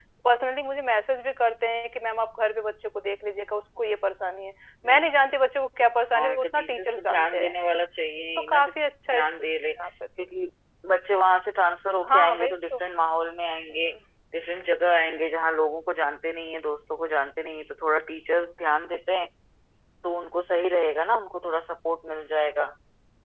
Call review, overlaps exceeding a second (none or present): present